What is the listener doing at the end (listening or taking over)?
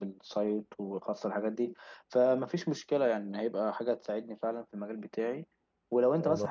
listening